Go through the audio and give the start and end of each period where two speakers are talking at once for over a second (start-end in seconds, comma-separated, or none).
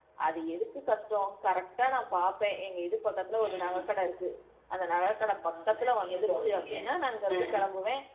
5.2-6.7